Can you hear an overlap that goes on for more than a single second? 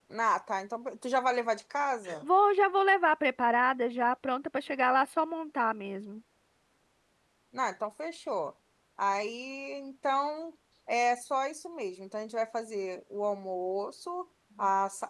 No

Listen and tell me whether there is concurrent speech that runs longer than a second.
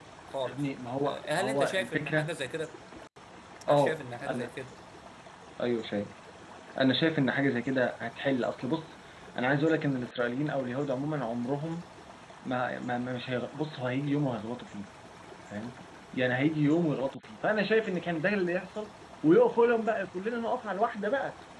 Yes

